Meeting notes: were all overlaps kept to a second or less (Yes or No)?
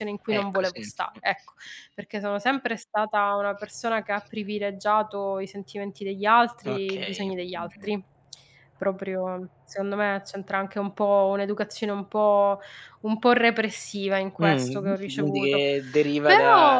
No